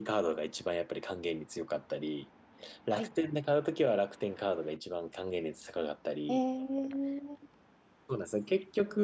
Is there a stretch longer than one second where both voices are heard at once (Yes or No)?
No